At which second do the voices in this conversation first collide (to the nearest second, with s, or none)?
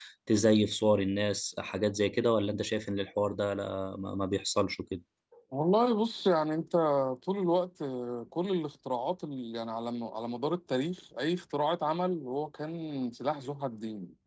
none